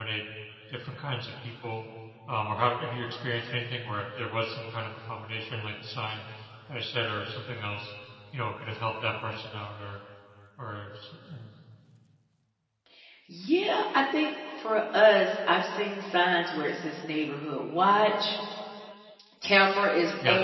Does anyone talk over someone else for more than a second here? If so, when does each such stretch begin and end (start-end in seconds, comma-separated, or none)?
none